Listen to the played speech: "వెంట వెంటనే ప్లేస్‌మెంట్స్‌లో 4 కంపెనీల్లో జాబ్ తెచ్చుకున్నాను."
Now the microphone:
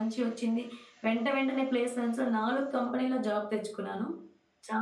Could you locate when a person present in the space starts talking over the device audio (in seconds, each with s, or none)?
none